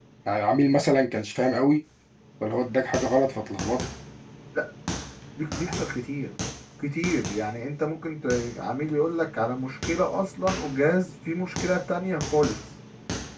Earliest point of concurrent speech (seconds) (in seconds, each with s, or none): none